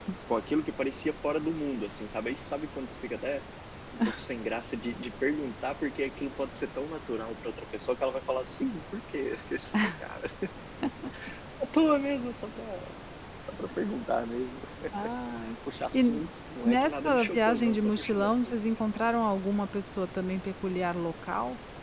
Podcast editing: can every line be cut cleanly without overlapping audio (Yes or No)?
No